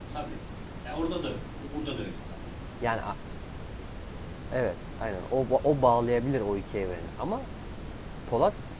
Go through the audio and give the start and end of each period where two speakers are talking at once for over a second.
none

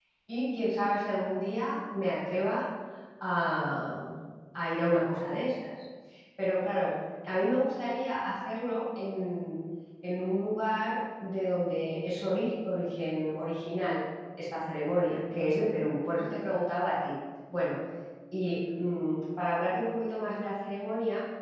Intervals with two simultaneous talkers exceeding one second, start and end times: none

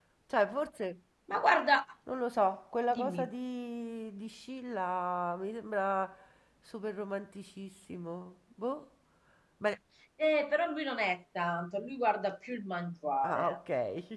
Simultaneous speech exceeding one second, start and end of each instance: none

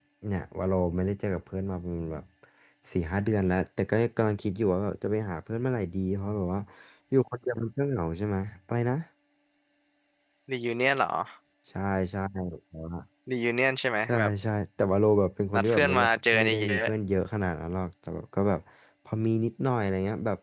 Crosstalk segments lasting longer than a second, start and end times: 15.5-16.8

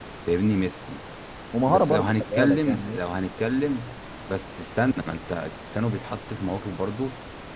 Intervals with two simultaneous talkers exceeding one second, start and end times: 1.7-3.3

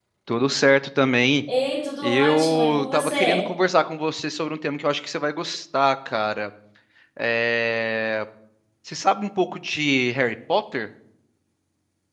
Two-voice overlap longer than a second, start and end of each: 2.0-3.4

